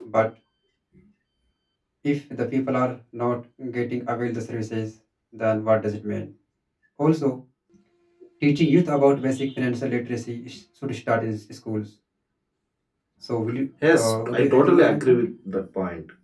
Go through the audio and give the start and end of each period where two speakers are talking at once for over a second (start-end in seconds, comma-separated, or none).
13.9-15.2